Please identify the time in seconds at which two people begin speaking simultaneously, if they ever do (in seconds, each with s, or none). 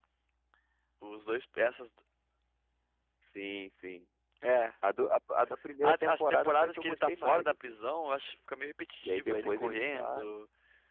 5.8 s